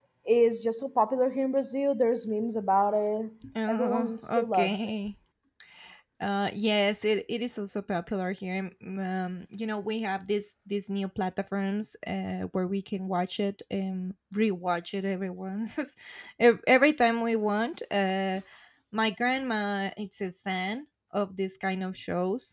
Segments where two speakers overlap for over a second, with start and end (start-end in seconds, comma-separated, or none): 3.7-4.9